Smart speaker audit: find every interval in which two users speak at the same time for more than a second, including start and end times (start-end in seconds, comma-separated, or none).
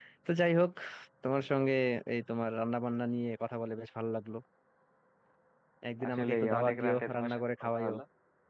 6.1-8.0